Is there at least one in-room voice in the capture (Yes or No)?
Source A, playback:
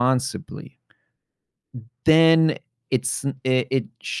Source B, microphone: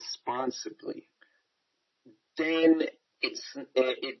No